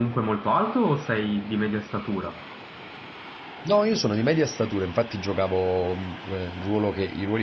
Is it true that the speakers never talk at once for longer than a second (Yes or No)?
Yes